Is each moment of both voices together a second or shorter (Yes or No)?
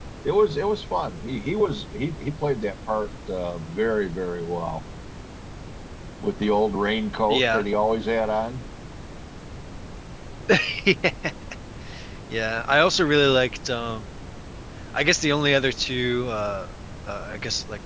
Yes